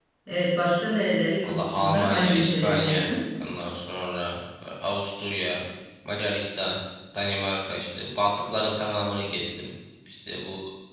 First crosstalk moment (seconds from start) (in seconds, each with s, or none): 1.4 s